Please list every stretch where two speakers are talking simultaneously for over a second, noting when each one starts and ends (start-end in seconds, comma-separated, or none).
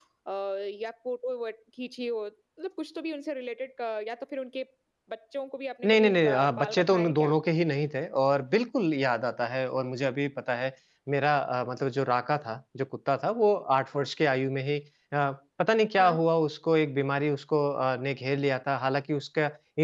5.8-7.3